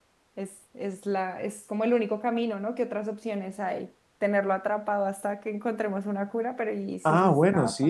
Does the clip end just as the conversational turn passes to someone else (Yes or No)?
Yes